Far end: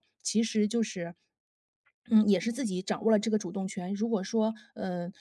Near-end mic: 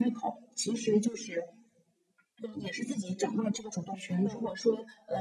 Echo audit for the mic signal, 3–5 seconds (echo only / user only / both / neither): both